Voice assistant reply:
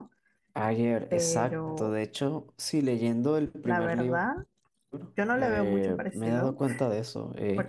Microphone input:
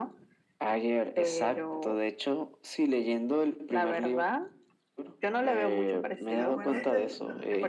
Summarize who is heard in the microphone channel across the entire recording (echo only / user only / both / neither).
both